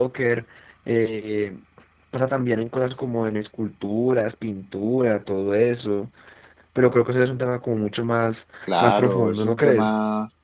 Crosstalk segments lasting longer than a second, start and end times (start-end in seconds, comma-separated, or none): 8.7-9.9